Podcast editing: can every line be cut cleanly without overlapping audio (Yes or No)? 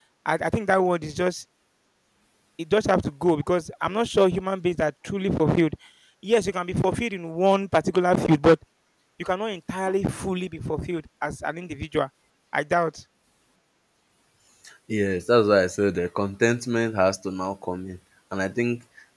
Yes